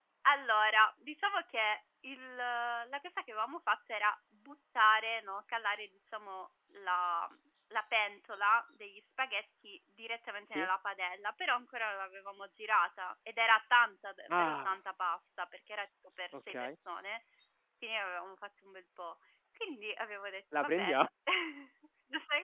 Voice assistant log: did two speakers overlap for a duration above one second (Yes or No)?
No